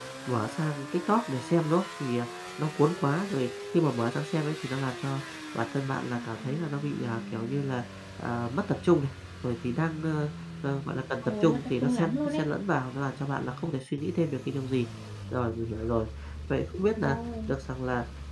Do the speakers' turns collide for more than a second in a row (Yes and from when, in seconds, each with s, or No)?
Yes, from 11.2 s